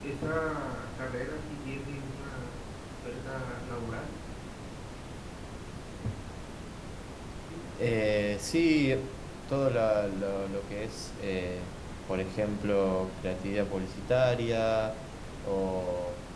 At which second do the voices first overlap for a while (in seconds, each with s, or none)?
none